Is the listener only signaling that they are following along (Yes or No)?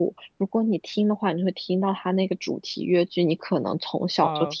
Yes